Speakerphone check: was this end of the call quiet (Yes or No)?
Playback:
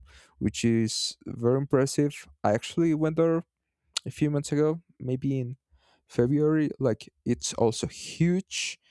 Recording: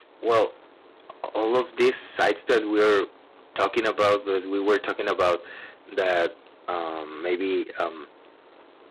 No